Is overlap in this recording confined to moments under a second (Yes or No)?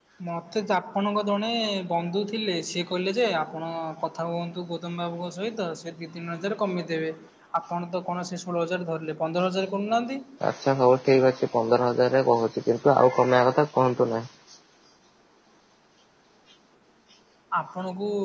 Yes